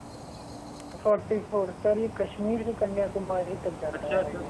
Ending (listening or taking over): taking over